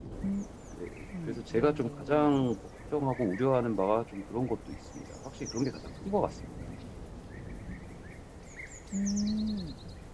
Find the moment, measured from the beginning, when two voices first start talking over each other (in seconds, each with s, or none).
1.3 s